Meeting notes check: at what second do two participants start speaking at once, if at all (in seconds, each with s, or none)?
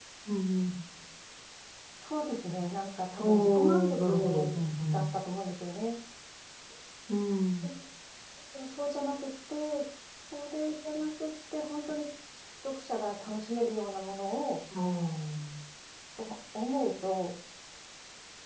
3.2 s